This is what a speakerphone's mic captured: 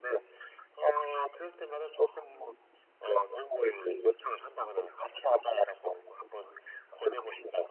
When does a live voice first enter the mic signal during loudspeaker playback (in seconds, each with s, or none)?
none